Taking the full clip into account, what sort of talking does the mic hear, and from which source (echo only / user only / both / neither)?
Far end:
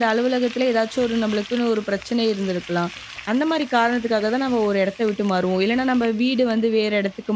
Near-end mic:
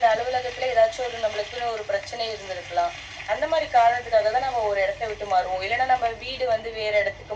echo only